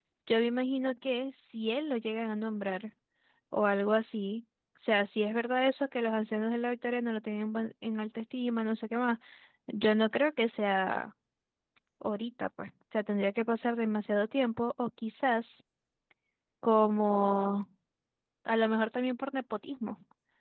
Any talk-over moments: No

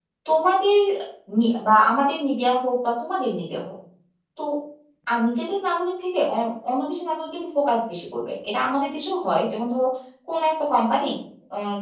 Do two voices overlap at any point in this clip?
No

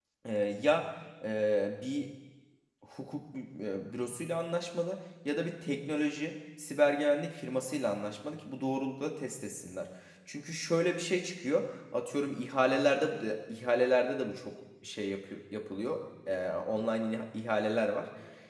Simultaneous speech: No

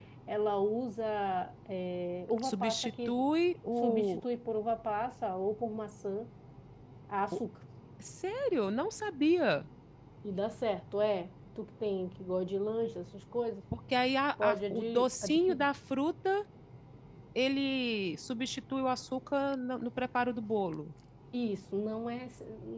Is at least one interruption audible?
Yes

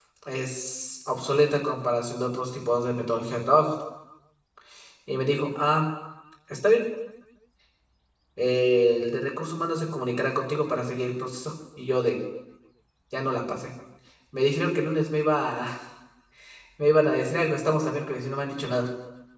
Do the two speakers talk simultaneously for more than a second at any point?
No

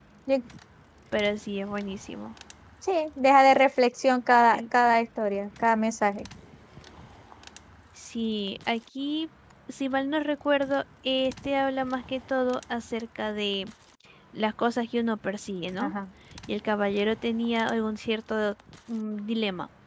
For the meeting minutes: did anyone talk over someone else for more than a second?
No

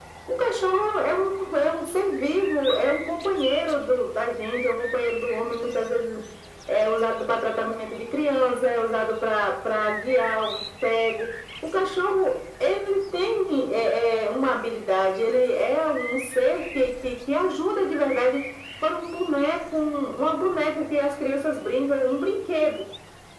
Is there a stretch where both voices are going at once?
No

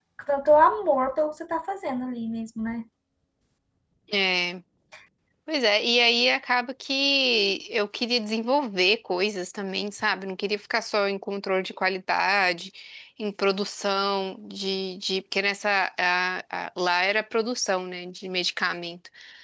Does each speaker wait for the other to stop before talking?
Yes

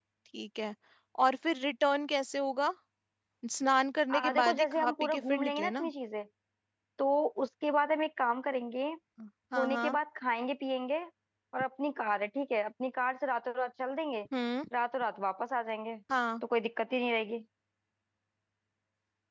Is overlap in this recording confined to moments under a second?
No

